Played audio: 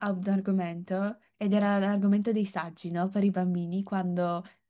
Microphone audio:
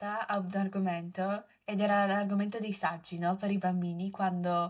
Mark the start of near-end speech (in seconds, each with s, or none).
none